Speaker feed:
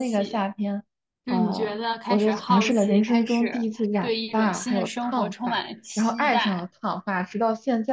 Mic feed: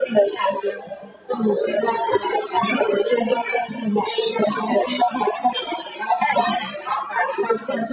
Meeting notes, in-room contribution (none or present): none